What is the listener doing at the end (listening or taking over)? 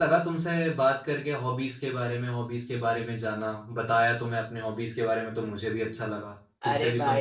taking over